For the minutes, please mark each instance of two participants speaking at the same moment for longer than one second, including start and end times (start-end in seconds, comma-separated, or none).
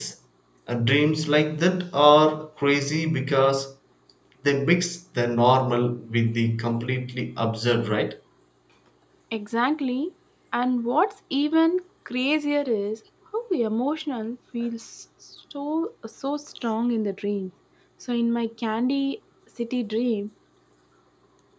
none